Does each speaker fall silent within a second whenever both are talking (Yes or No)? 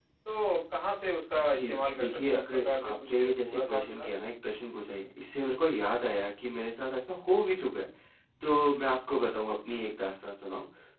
No